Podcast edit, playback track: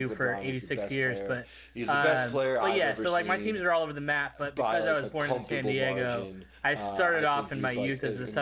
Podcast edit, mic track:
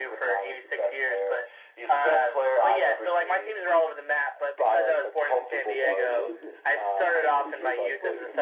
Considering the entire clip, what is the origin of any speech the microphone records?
both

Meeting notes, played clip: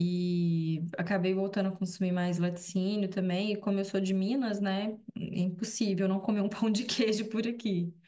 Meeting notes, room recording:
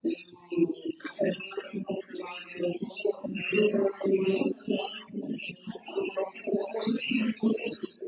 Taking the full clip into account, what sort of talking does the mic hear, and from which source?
echo only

